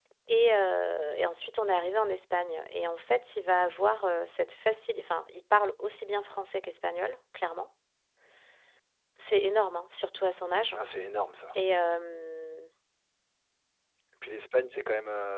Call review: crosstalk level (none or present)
none